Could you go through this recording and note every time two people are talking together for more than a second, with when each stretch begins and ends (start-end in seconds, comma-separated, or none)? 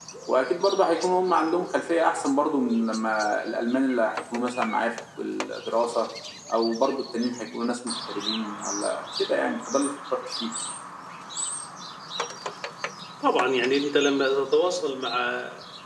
none